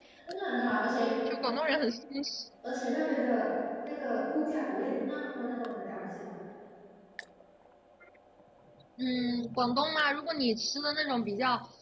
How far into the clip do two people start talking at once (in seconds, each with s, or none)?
none